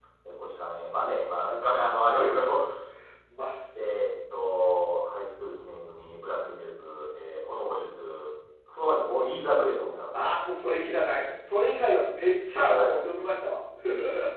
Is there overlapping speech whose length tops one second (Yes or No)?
No